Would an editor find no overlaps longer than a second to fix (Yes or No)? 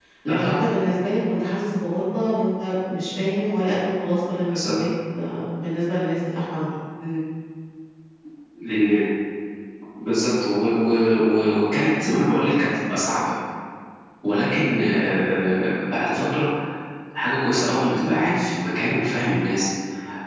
Yes